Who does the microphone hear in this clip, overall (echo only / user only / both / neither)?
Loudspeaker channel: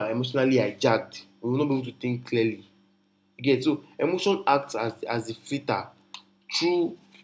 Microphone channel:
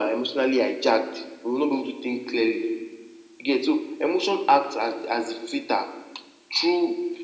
echo only